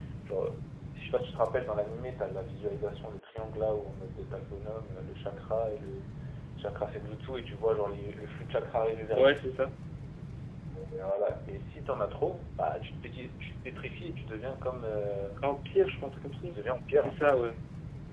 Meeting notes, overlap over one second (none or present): none